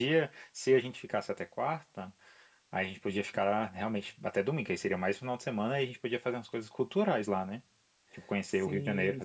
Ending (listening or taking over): taking over